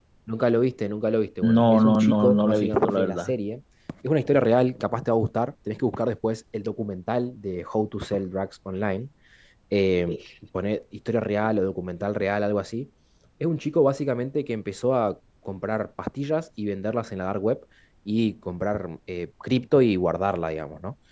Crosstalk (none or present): present